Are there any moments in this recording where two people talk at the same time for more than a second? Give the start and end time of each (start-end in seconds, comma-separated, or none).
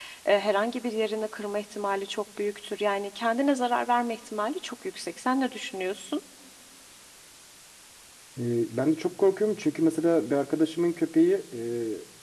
none